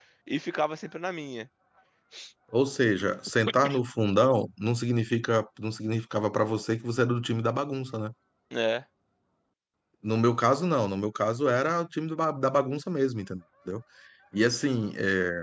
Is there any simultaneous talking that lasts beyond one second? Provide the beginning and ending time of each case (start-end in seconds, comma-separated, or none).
none